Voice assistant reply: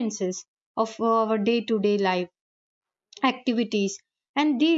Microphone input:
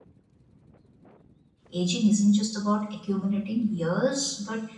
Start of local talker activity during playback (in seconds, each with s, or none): 1.7 s